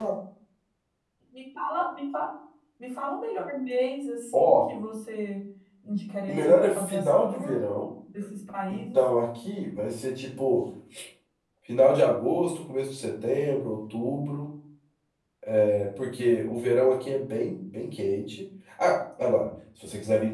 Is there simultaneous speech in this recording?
Yes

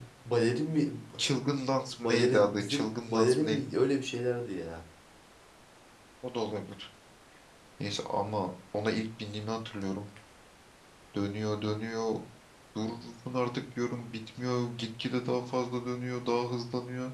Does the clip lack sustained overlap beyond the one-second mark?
No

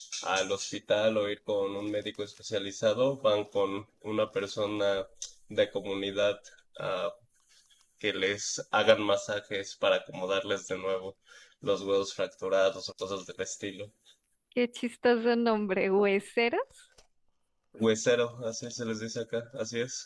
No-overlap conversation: Yes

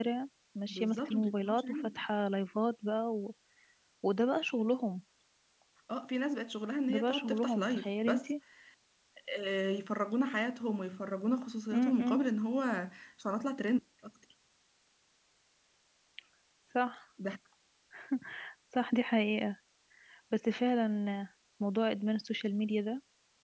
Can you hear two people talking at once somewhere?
Yes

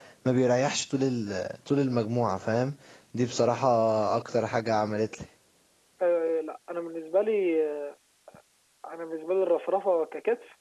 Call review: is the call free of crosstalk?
Yes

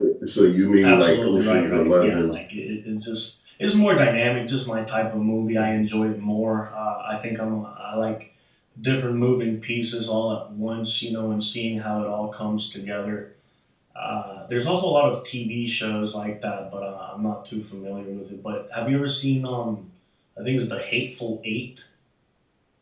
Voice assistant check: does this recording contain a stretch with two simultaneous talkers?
Yes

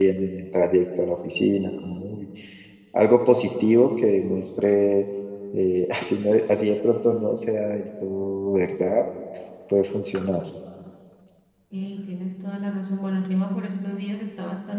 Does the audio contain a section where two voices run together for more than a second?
No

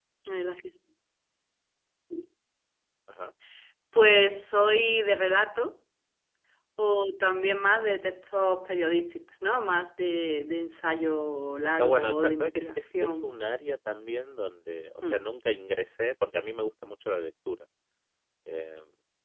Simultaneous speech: Yes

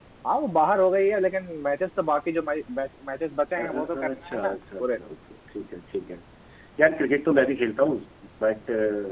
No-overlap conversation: No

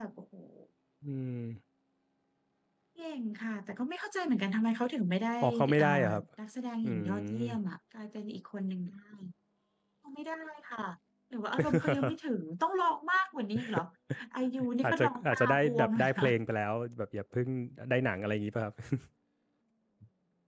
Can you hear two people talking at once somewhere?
Yes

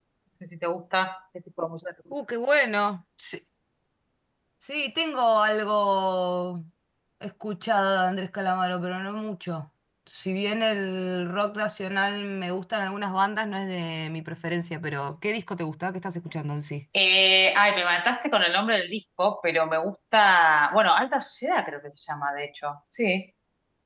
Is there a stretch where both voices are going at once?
No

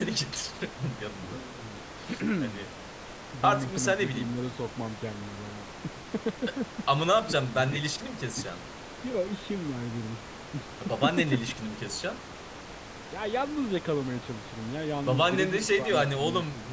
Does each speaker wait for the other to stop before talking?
No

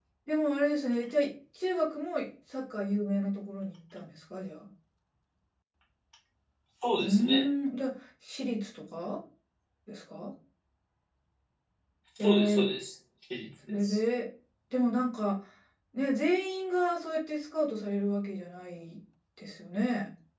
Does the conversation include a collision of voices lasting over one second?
No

